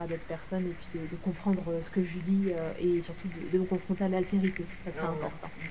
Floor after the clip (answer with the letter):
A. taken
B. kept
A